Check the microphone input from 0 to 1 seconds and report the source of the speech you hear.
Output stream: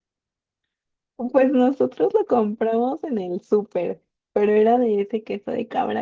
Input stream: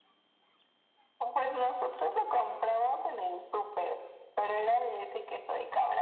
neither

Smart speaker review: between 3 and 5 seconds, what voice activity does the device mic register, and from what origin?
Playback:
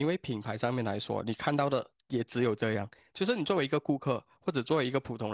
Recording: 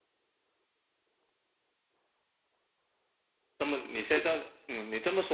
user only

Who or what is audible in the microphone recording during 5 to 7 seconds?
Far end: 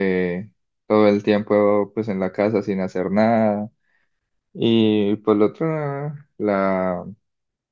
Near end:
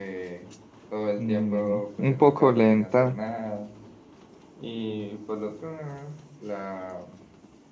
echo only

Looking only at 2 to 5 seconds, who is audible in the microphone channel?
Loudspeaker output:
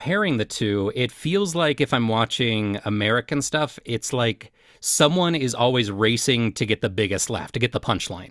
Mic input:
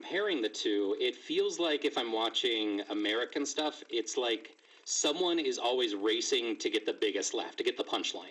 echo only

